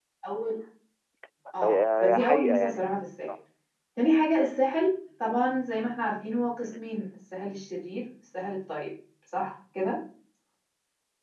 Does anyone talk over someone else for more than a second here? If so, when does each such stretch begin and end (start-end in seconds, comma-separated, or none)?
1.6-3.3